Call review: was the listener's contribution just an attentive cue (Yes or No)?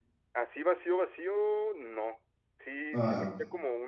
Yes